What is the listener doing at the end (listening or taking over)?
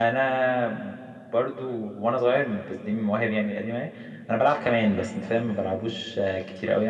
taking over